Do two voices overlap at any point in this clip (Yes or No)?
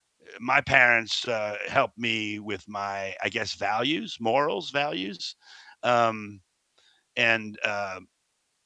No